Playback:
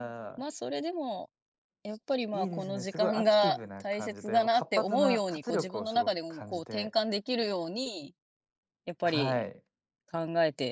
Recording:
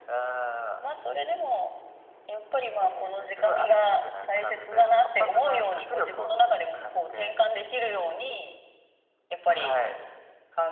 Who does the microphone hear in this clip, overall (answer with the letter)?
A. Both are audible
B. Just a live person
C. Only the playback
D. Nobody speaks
C